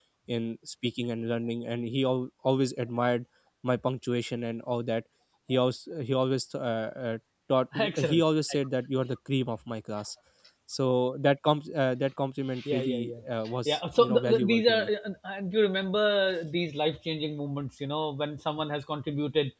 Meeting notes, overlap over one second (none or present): present